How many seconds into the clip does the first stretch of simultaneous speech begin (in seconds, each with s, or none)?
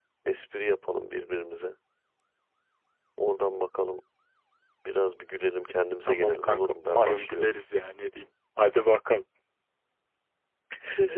6.1 s